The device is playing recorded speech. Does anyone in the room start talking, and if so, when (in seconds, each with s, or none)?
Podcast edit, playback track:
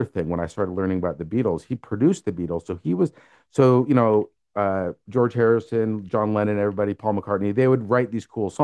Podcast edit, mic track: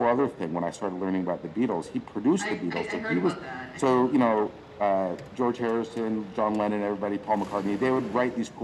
2.4 s